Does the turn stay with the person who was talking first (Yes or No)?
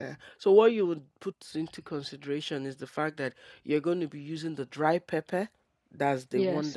Yes